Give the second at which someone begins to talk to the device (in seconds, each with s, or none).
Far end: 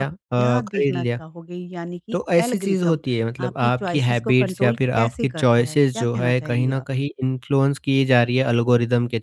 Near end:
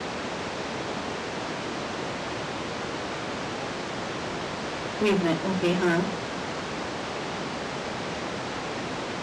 5.0 s